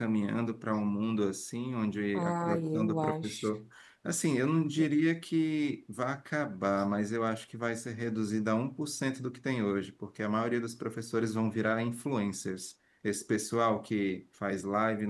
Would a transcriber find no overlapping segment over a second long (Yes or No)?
No